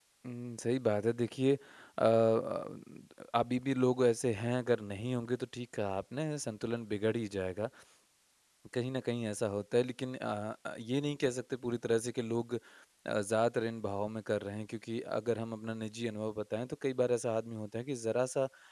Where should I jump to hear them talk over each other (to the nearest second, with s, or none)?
none